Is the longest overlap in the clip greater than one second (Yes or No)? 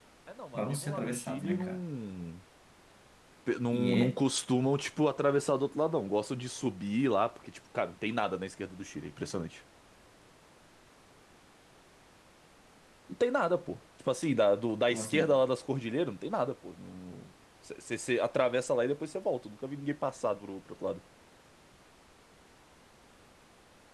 Yes